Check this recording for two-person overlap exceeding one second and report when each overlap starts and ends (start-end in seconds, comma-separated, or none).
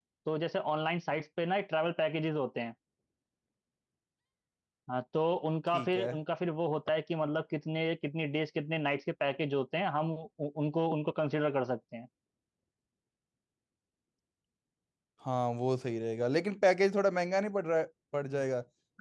none